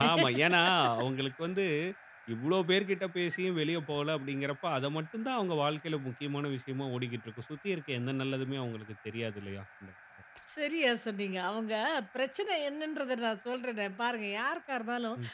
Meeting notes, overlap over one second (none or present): none